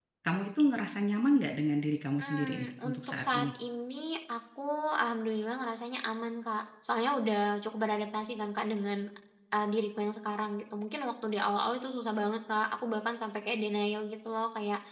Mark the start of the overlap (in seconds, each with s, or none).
2.2 s